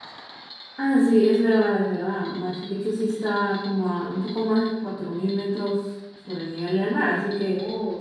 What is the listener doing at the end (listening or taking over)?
listening